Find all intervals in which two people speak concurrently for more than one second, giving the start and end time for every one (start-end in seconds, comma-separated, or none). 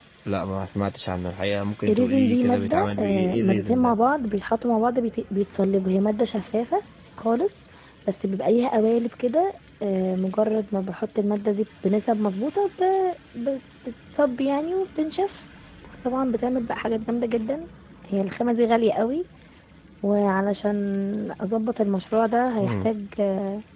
1.9-4.0